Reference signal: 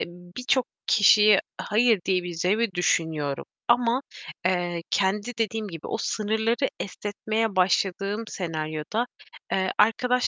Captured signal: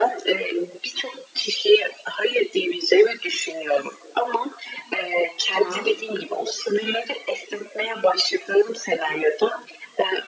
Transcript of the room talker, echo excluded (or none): Tamam.